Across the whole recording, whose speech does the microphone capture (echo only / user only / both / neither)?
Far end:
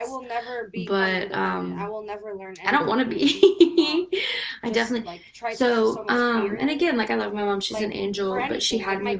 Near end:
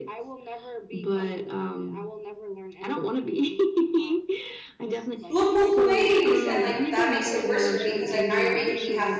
both